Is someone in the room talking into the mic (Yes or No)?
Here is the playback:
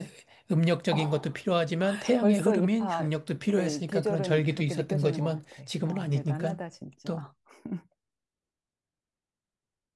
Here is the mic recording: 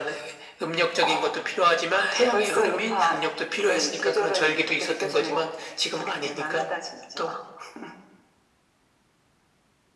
No